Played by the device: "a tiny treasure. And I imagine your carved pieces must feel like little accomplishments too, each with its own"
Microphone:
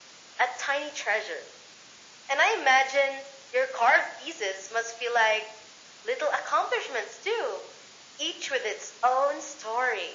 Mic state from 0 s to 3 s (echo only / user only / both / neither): echo only